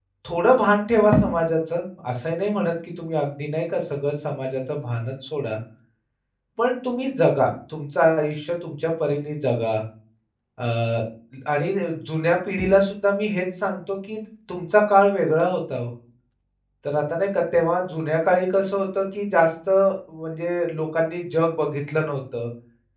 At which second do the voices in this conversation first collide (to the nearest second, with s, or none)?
none